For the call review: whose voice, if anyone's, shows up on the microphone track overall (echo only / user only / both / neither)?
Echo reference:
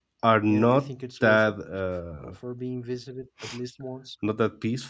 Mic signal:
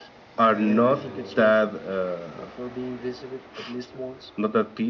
both